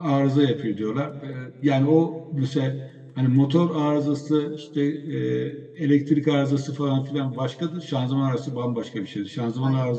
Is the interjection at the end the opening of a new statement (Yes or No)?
No